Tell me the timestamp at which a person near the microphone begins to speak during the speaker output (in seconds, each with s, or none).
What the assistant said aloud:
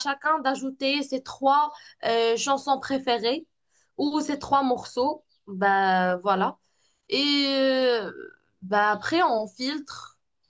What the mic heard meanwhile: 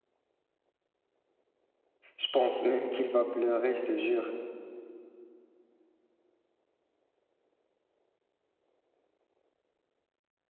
2.2 s